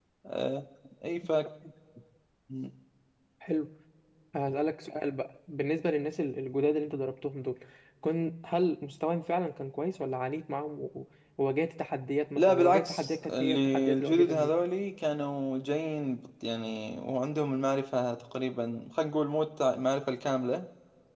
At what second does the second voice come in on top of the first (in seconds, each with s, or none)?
12.4 s